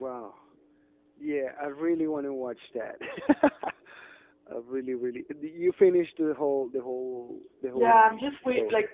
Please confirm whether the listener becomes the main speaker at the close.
Yes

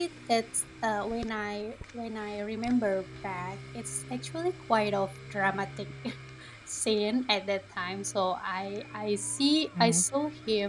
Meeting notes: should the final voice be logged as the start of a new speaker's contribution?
No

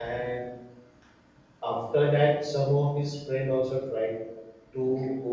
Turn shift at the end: No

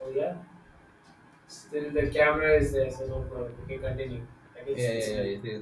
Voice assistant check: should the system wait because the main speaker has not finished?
No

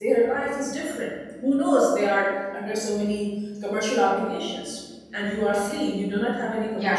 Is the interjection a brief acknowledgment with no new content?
Yes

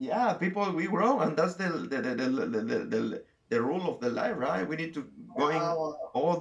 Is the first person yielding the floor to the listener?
No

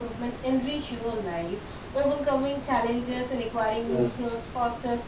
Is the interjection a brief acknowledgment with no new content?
Yes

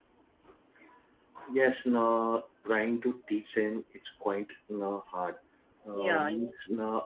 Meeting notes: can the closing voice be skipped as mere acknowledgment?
Yes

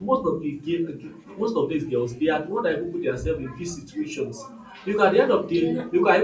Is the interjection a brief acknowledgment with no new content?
Yes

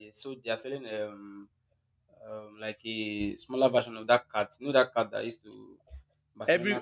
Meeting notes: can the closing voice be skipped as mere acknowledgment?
No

